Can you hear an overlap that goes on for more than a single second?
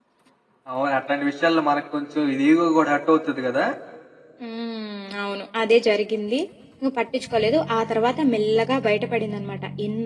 No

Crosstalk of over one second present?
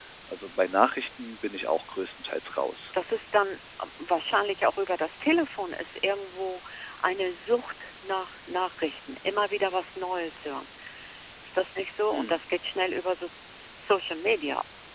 No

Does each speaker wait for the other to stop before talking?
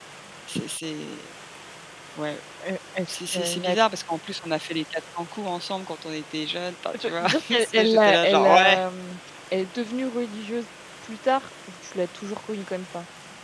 No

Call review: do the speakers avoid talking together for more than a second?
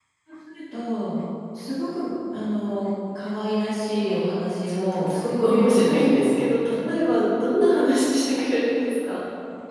No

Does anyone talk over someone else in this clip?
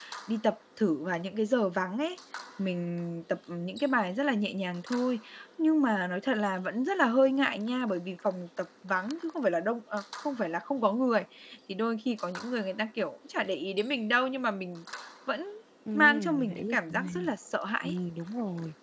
Yes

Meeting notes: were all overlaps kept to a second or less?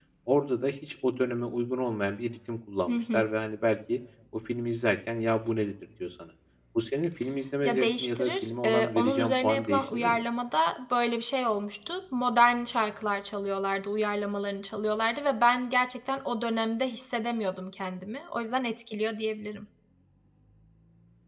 No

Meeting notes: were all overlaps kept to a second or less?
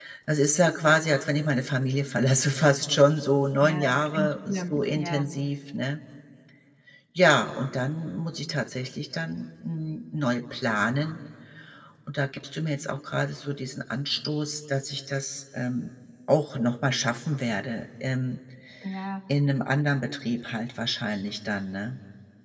No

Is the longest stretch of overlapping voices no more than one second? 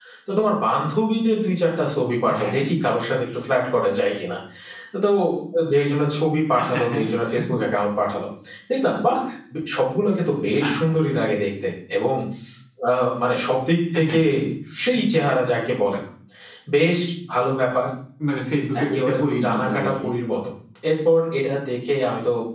No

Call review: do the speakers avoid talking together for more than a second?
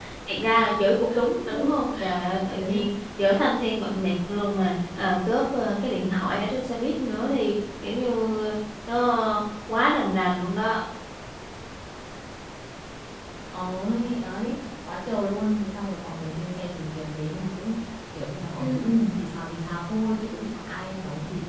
Yes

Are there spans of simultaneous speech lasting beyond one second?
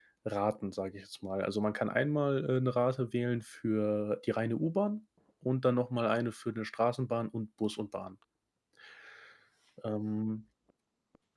No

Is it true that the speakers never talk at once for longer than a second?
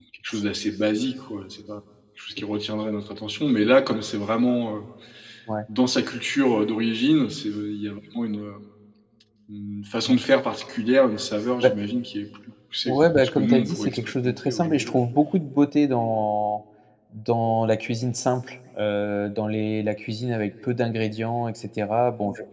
No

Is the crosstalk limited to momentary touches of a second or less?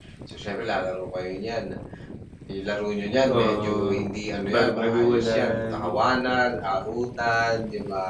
No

